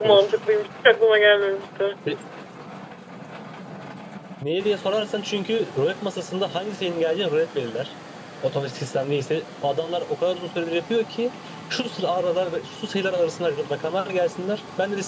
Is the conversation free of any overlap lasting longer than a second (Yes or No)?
Yes